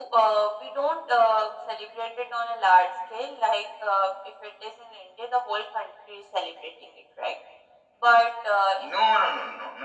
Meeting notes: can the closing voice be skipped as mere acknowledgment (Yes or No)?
No